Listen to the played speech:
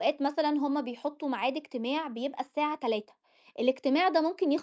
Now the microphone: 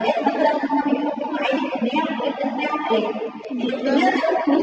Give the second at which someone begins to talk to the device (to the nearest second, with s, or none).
4 s